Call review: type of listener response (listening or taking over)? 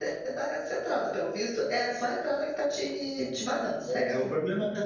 taking over